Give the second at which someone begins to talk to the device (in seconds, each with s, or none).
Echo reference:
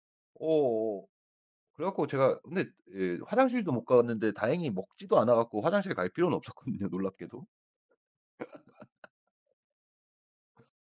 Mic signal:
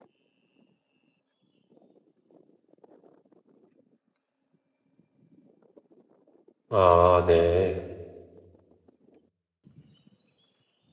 6.7 s